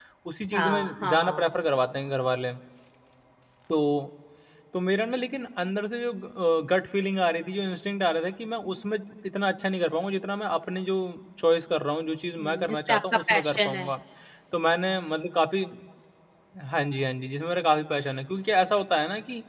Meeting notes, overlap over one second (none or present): present